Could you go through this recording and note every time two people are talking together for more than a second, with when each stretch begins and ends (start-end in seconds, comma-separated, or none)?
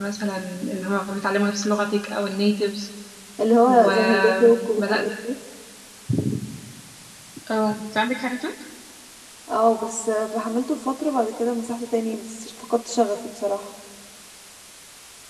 3.6-5.0